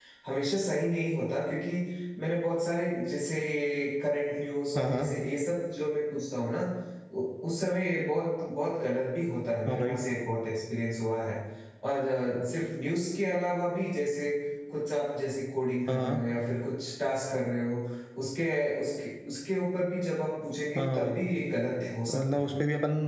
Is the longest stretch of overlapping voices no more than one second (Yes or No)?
Yes